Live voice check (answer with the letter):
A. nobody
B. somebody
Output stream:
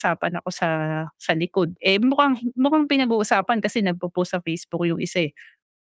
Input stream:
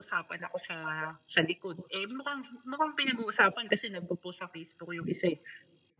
A